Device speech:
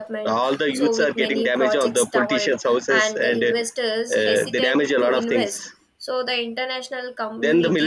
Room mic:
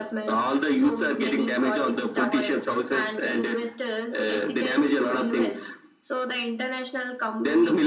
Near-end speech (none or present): none